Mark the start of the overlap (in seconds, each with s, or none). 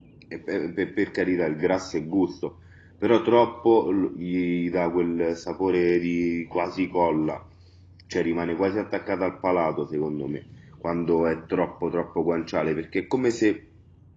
none